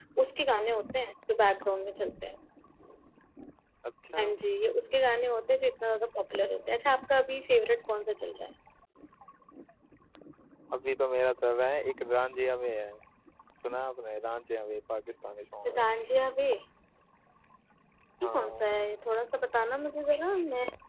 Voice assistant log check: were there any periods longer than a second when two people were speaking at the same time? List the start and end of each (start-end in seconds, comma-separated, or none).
none